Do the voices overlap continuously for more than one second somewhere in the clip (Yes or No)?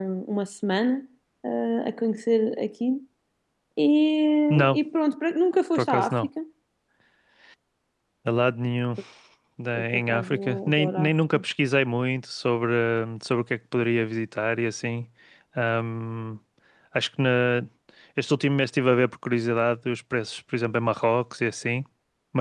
Yes